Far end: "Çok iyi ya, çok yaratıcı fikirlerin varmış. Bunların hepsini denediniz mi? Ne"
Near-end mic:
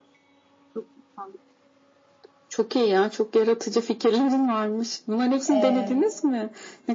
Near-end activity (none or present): present